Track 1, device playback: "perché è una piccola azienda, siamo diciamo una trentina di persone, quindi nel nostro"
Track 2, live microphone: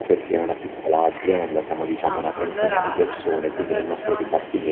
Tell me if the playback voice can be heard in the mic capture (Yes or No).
Yes